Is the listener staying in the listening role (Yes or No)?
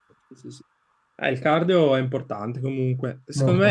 Yes